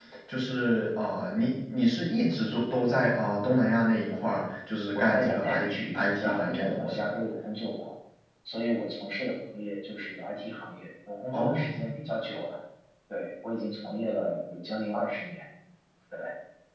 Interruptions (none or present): present